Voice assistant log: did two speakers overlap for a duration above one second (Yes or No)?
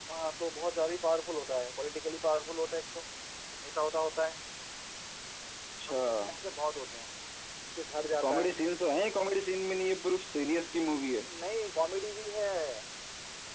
No